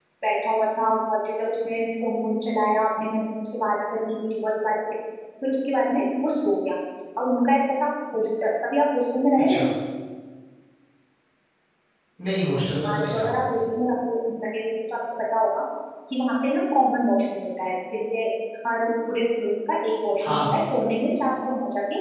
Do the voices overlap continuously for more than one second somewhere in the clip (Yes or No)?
No